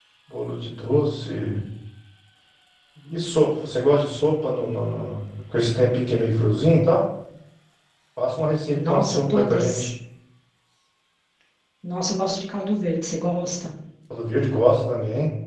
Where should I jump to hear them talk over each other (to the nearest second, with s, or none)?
9 s